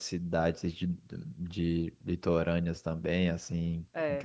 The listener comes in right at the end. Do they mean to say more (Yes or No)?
No